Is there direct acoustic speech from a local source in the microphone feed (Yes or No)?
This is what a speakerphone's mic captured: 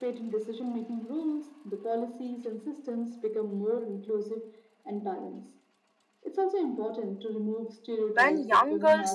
Yes